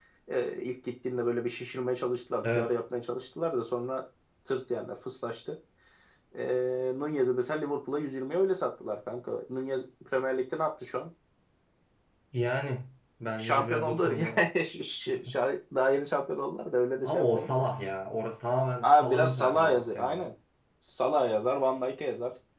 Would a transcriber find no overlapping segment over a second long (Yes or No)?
No